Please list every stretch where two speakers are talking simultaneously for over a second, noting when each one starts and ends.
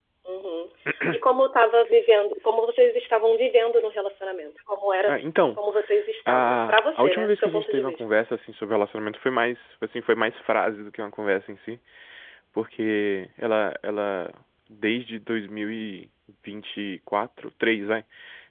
6.3-8.0

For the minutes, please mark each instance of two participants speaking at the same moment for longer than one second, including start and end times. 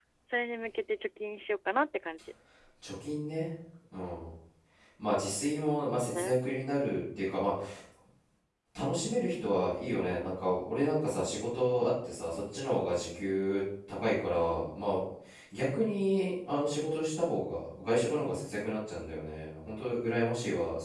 none

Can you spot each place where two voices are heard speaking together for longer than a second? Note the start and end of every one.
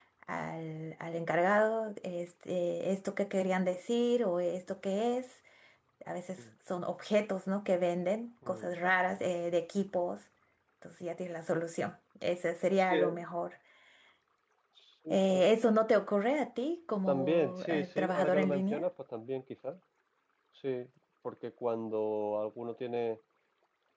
17.1-18.8

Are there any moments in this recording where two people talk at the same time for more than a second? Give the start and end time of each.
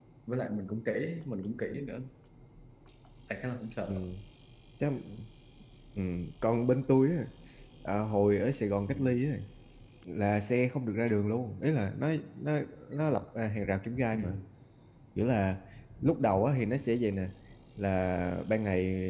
none

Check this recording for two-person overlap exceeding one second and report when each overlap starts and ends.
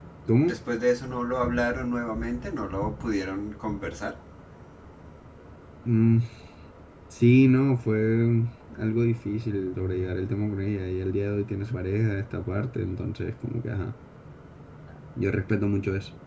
none

